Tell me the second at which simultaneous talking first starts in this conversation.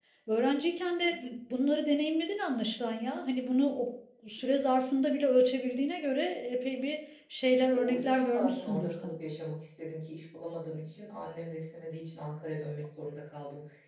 7.5 s

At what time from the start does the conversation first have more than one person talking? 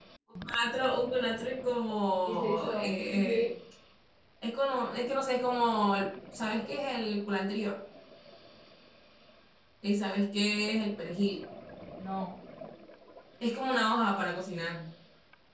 2.3 s

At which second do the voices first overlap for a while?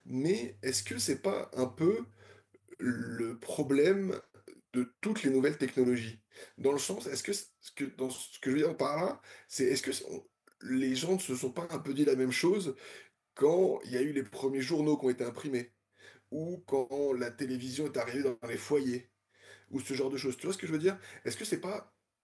none

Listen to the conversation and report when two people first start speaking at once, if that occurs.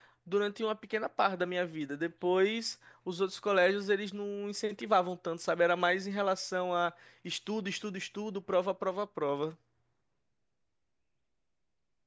none

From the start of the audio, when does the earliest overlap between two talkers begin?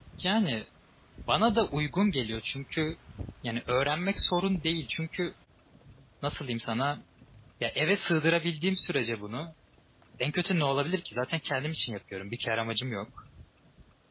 none

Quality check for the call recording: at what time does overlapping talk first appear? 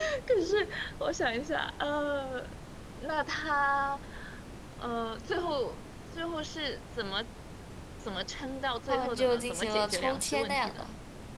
8.9 s

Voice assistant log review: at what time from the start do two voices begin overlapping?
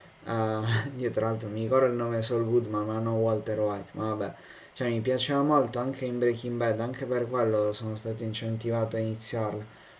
none

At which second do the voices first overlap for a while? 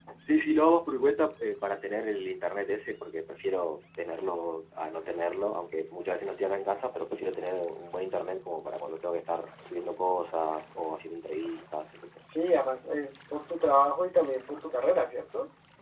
none

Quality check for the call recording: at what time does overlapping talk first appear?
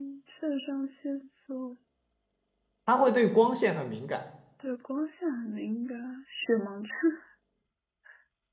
none

